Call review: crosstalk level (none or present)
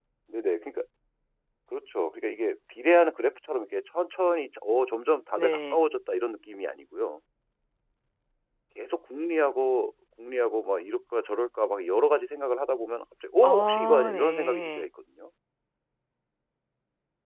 present